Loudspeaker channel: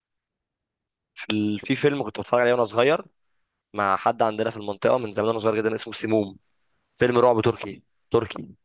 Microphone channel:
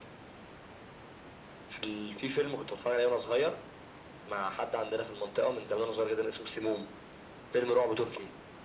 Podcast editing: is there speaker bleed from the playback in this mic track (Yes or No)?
Yes